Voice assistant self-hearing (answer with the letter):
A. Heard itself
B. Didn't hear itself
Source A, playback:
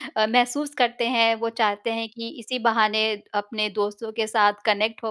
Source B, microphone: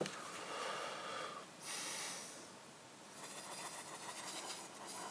B